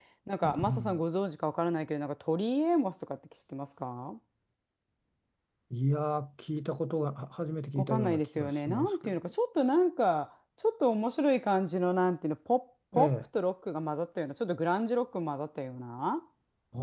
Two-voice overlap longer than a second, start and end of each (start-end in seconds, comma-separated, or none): 7.8-9.2